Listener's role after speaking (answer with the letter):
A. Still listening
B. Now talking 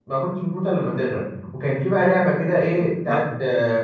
A